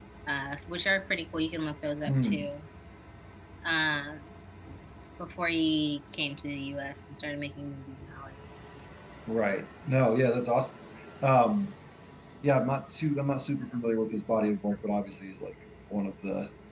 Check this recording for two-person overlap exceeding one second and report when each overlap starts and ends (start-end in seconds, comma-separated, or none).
none